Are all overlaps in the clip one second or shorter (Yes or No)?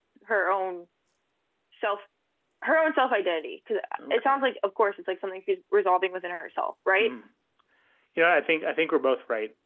Yes